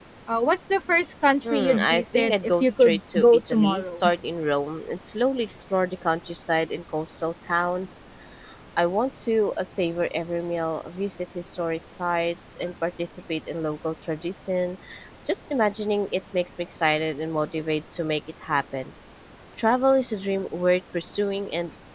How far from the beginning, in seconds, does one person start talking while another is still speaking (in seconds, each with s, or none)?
1.4 s